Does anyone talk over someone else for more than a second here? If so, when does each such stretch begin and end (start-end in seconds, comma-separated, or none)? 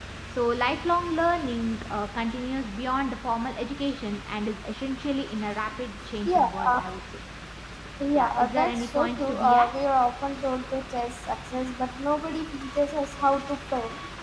8.2-9.7